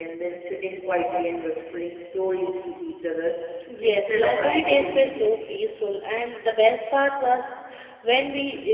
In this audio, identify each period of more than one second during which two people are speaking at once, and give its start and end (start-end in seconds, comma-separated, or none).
3.8-5.3